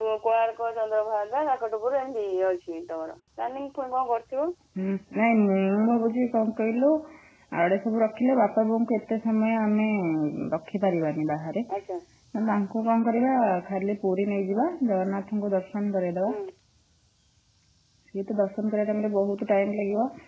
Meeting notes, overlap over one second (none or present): none